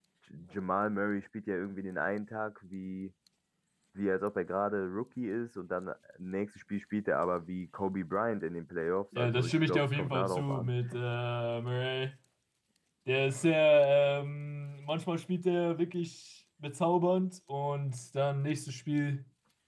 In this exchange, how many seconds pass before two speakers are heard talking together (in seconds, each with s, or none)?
9.1 s